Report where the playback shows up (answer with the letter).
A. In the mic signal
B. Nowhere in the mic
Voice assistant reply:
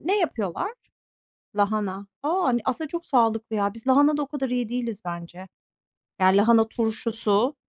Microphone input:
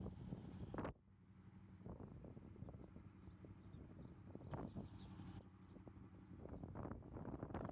B